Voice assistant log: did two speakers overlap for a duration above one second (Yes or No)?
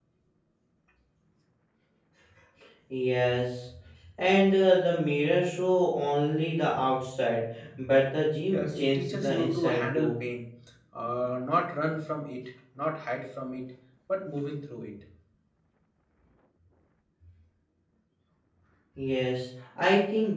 Yes